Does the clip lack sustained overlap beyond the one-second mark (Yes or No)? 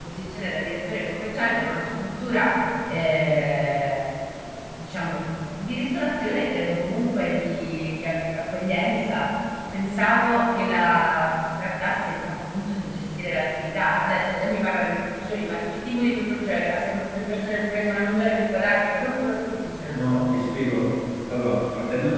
Yes